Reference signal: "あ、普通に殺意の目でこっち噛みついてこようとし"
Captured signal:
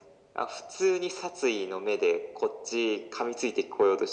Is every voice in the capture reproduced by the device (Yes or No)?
Yes